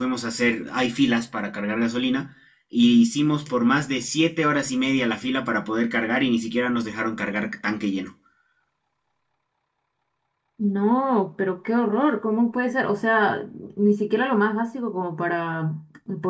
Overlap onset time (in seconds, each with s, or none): none